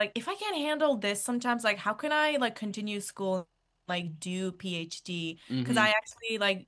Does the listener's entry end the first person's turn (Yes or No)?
No